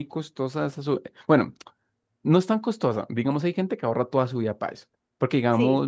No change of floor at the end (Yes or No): Yes